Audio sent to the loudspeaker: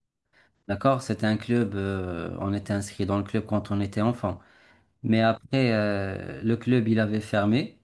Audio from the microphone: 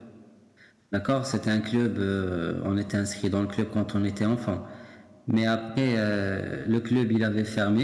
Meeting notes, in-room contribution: none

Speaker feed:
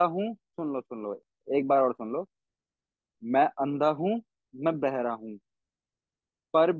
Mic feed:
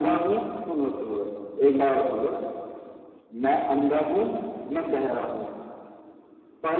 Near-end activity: none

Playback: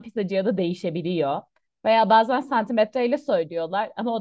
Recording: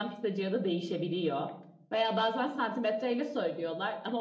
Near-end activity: none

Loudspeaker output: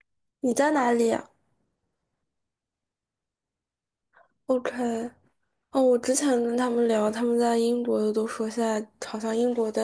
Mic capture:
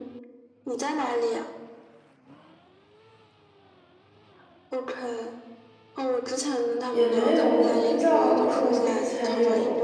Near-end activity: present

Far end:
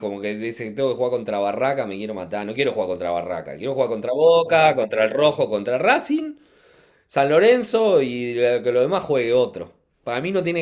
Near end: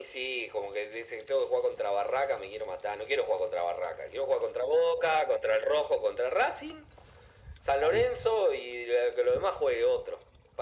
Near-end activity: present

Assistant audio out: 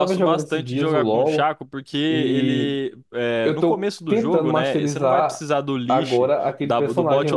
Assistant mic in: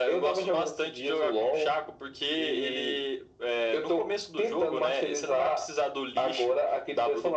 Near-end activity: none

